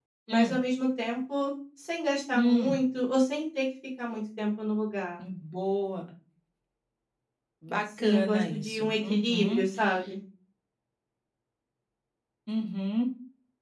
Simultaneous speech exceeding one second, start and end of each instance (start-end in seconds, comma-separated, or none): 8.0-9.6